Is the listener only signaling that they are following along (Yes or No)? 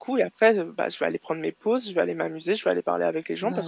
No